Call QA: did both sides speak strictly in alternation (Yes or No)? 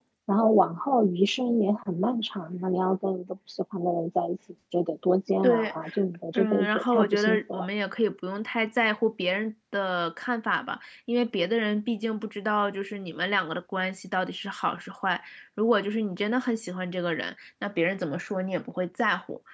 No